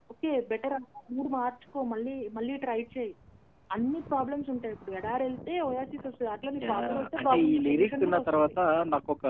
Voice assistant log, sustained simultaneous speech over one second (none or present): present